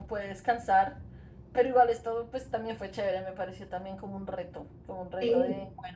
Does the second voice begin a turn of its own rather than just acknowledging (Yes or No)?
No